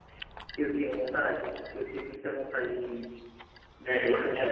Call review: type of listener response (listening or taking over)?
taking over